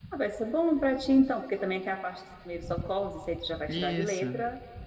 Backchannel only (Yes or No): Yes